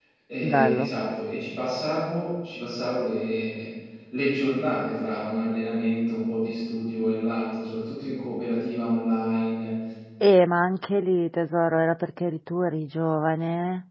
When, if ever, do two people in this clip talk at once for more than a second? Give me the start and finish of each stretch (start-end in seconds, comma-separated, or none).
none